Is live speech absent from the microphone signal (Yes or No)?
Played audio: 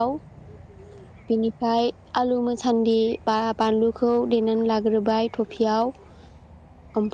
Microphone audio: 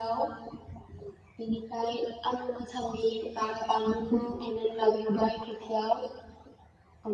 Yes